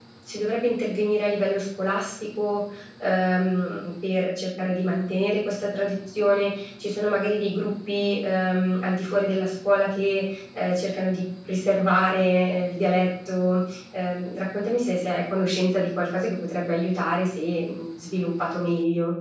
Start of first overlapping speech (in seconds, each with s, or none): none